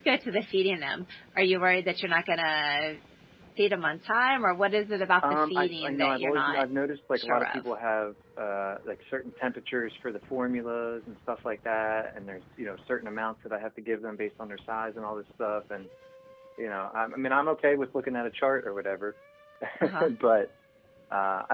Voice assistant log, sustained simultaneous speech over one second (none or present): present